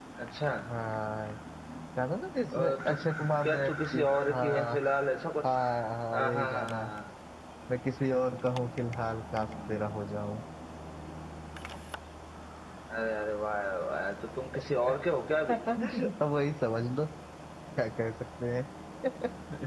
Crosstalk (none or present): present